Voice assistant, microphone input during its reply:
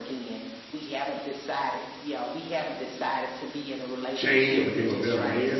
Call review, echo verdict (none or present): present